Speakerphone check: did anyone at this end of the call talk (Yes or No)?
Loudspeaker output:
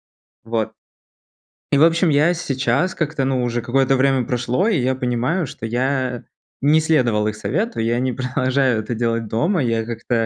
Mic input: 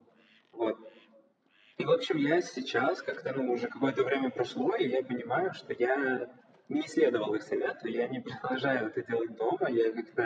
No